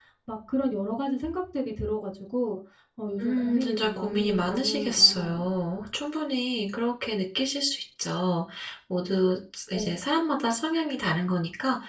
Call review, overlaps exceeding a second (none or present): present